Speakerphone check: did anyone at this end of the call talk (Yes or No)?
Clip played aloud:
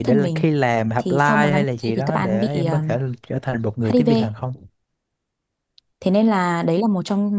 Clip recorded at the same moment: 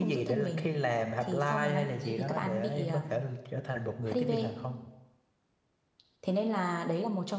No